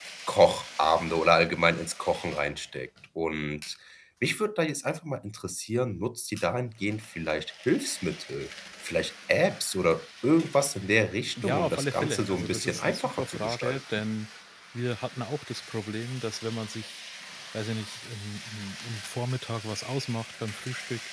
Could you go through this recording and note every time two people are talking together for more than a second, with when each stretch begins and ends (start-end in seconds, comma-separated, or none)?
11.4-13.8